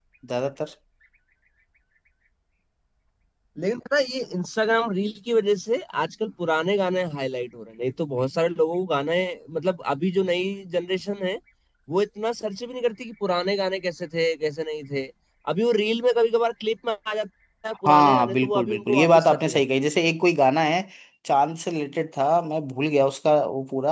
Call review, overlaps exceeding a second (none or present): present